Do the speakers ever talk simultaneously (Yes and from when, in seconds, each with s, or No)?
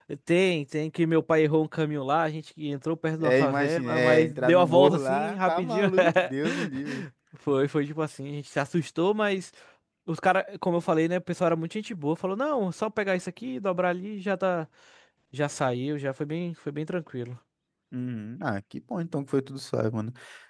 Yes, from 3.2 s